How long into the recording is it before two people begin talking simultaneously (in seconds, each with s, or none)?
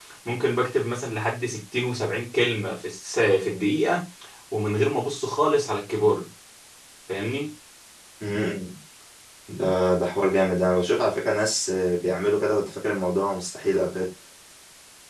none